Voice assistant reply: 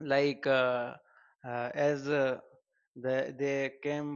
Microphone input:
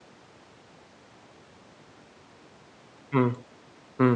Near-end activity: present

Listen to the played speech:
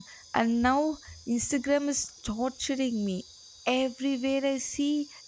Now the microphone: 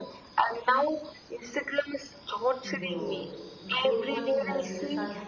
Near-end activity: present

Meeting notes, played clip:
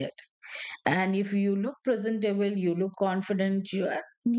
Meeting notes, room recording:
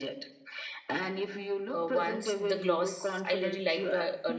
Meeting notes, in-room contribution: present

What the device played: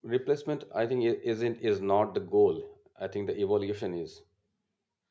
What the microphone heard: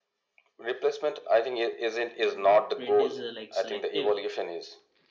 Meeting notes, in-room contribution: present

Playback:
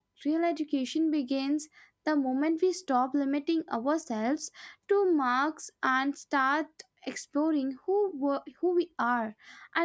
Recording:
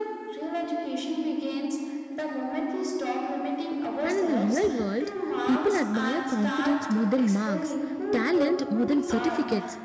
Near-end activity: present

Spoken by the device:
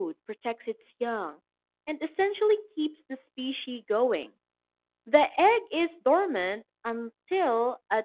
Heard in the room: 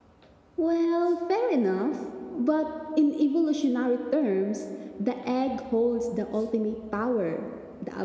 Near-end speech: present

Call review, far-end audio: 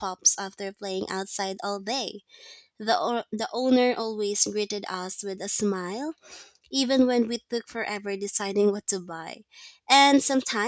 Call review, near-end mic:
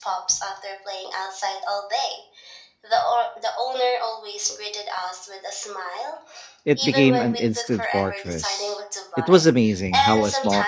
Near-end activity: present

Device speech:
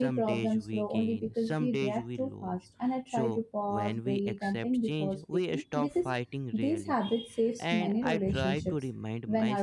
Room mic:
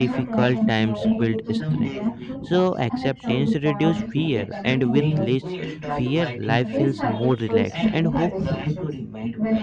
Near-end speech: present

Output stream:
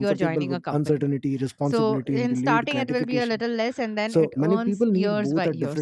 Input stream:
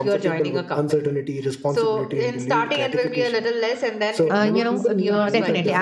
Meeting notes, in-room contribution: present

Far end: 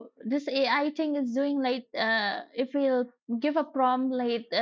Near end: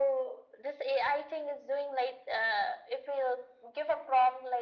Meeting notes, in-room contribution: none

